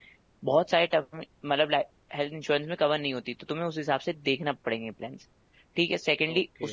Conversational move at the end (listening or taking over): listening